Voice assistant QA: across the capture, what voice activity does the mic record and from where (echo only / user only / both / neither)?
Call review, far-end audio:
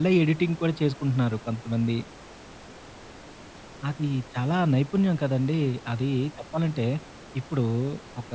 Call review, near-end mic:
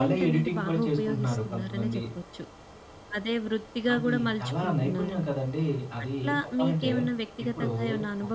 both